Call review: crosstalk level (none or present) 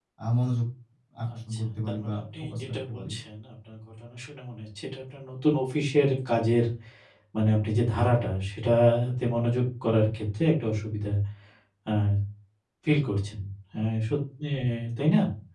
present